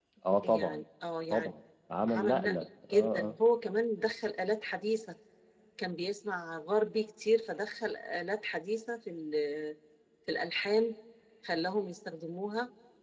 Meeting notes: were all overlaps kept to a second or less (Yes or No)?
No